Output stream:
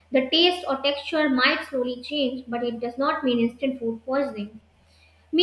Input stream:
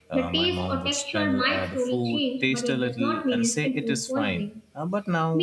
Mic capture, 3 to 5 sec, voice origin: both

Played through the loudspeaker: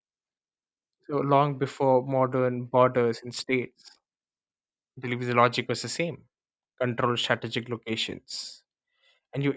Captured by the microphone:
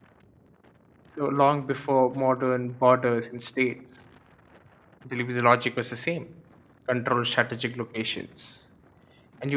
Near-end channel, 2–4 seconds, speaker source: echo only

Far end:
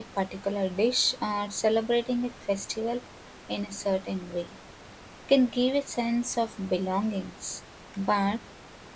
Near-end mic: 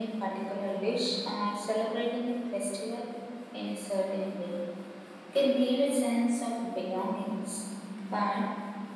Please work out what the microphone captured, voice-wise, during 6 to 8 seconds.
echo only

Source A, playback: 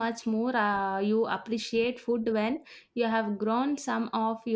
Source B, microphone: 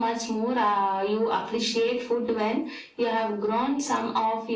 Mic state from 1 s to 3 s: echo only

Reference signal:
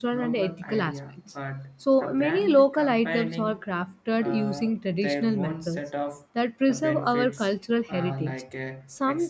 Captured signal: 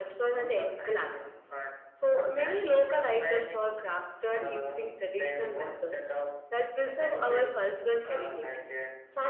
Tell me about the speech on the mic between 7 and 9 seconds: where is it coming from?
echo only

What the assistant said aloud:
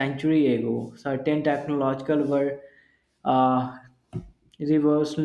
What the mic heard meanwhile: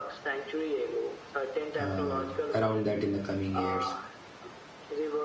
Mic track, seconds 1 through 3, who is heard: both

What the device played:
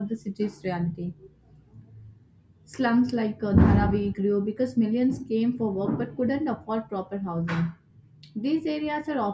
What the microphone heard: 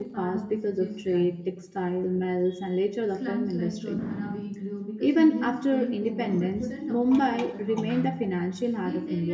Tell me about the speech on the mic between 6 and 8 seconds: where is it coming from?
both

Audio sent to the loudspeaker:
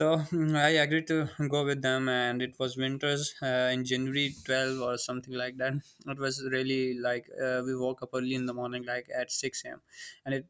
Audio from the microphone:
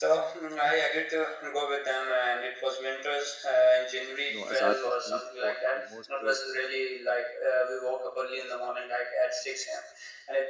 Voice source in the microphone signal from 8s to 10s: echo only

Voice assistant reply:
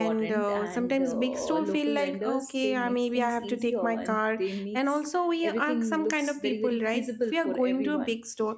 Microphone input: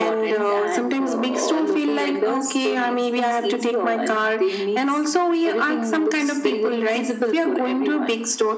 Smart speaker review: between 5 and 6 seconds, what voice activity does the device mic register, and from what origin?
echo only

